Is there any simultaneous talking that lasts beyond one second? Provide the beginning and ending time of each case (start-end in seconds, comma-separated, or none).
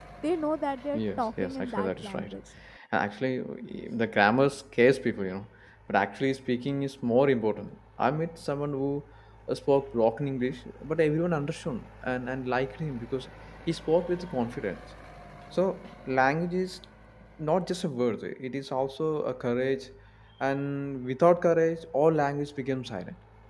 0.9-2.3